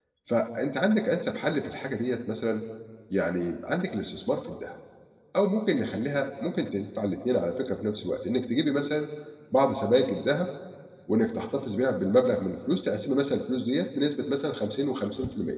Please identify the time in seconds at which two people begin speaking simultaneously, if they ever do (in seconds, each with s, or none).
none